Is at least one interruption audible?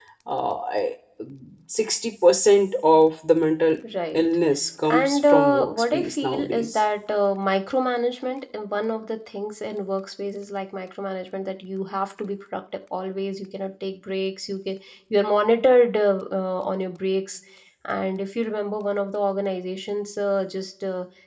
Yes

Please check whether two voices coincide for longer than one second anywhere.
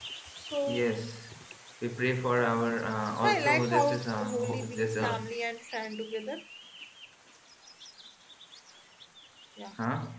Yes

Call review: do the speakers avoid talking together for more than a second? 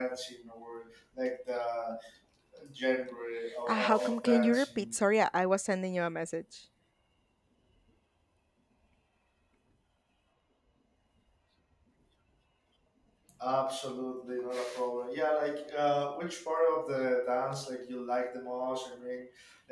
No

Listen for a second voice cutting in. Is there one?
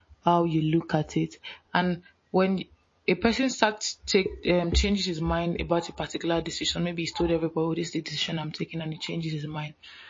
No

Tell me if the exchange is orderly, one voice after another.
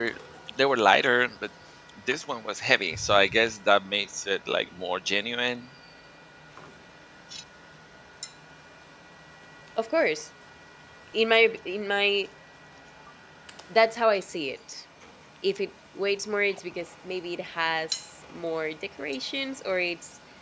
Yes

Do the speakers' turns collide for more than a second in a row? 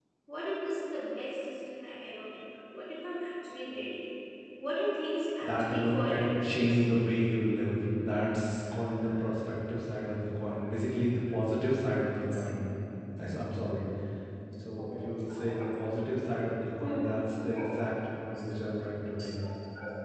Yes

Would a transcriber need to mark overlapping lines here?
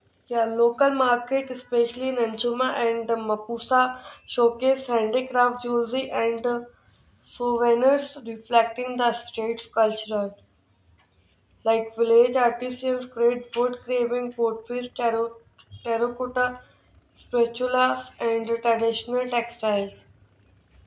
No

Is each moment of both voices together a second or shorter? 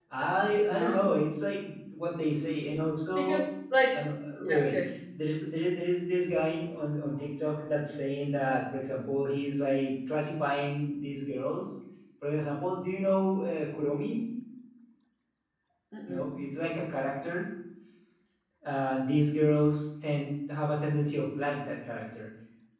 Yes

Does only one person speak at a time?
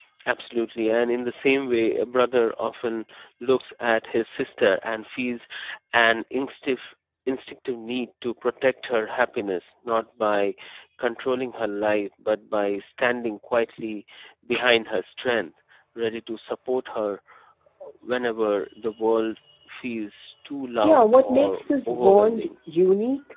No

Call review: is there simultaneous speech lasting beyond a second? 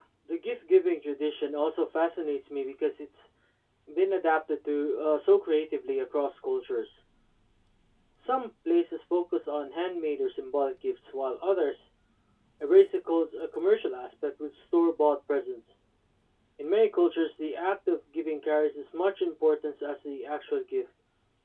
No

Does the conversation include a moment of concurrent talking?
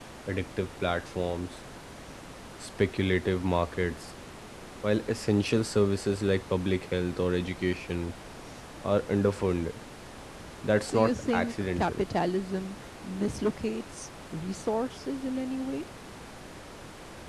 Yes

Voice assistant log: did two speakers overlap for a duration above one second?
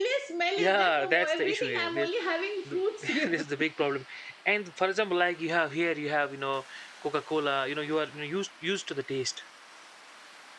Yes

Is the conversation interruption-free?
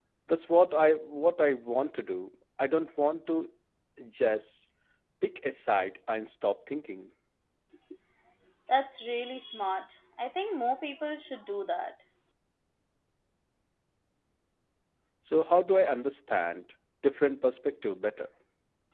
Yes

